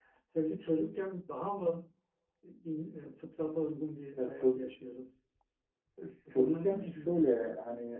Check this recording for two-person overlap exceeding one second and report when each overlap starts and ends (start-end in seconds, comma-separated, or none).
6.3-7.5